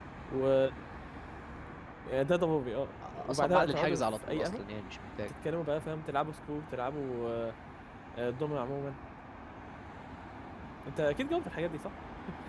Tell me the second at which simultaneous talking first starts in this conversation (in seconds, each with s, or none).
3.0 s